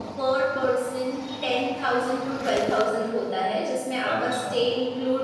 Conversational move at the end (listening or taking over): listening